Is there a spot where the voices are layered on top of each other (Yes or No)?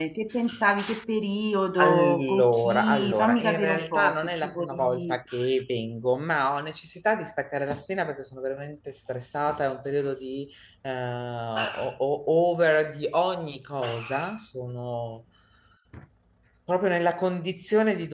Yes